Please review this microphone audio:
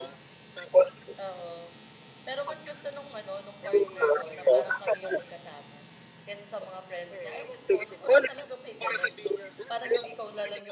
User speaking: Yes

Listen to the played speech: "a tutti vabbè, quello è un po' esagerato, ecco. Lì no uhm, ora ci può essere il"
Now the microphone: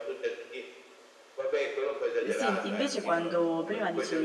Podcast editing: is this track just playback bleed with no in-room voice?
No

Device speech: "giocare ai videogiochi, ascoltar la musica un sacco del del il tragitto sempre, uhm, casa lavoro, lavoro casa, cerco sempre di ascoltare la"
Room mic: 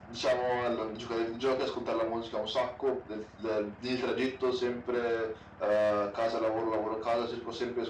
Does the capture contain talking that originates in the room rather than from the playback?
No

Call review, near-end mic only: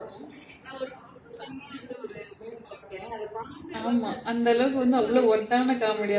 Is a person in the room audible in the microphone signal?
Yes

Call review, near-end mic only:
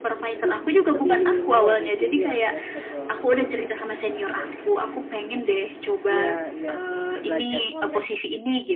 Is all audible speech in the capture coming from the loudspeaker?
No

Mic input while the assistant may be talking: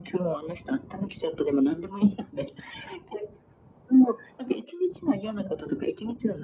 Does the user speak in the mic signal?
No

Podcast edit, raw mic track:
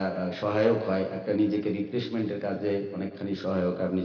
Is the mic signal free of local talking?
Yes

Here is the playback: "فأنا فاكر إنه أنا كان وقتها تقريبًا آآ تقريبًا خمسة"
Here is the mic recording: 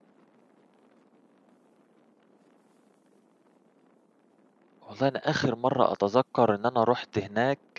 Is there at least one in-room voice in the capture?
Yes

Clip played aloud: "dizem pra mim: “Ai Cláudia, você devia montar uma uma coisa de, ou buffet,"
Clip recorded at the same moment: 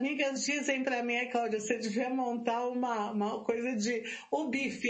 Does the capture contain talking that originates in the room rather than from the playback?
No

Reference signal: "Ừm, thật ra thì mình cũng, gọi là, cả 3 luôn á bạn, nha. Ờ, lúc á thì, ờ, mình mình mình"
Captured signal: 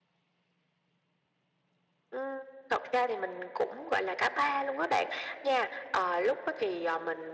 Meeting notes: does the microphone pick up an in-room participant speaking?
No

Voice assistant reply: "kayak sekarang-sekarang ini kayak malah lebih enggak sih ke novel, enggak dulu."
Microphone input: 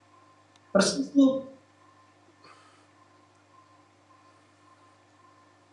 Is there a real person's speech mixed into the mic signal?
Yes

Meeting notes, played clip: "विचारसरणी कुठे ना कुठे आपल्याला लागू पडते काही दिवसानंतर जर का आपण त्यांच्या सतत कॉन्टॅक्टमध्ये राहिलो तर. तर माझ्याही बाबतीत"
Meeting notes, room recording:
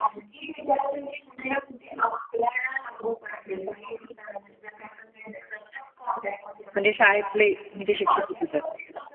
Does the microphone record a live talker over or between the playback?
Yes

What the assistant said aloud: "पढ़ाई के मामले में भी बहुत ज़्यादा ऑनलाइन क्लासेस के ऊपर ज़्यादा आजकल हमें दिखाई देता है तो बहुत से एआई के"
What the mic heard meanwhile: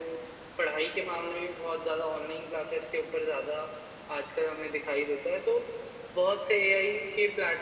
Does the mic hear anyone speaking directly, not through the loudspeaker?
No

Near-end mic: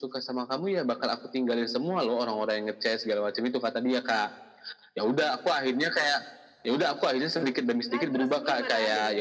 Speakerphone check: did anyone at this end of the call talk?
Yes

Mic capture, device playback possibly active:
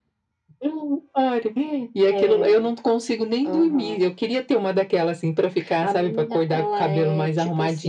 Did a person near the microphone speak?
No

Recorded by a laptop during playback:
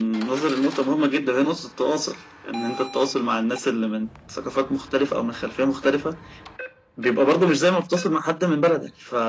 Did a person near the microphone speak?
No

